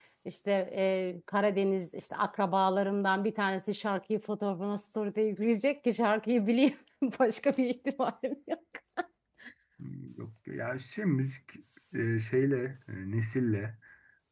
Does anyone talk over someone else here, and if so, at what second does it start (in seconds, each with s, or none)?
none